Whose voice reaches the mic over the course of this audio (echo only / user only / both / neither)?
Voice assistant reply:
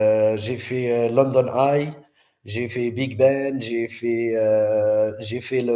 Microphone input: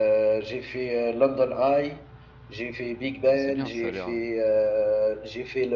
both